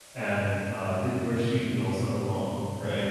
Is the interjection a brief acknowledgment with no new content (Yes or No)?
Yes